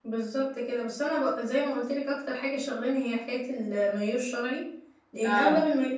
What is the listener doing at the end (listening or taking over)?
listening